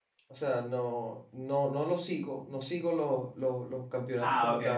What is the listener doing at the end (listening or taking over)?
listening